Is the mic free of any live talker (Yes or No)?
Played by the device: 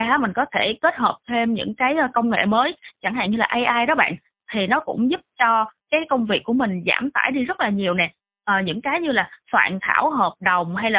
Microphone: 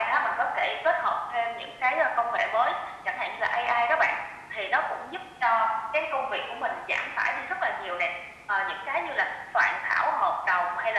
Yes